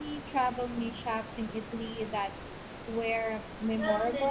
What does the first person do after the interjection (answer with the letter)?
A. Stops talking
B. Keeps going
A